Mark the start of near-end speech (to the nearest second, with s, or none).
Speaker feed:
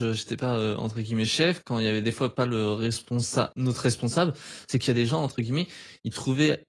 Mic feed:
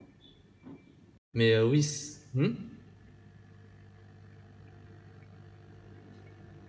1 s